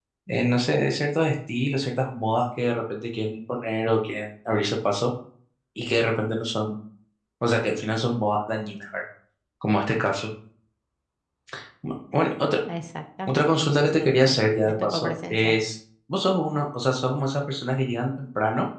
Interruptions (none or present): present